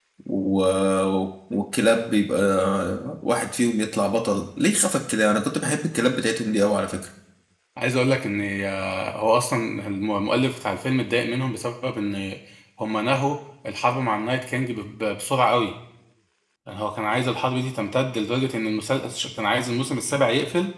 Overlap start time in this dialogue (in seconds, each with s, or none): none